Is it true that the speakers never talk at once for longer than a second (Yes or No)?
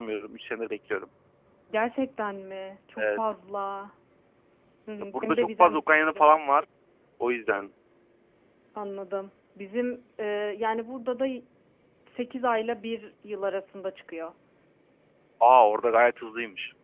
No